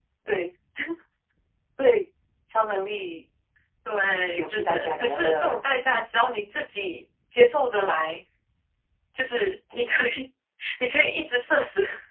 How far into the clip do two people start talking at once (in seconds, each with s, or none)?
4.3 s